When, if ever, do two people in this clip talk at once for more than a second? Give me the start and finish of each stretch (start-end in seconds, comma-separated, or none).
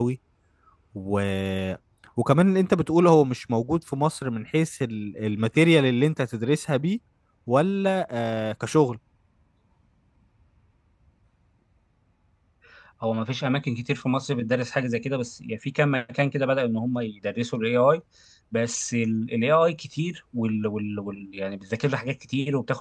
none